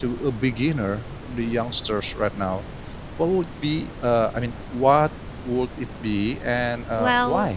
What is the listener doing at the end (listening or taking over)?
taking over